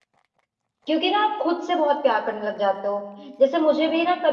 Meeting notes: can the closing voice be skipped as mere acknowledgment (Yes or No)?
Yes